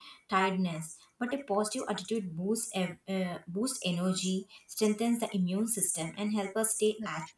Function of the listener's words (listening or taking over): listening